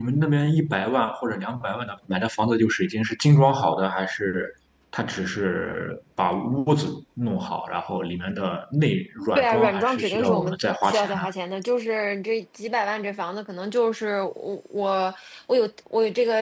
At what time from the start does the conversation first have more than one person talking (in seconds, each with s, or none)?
9.4 s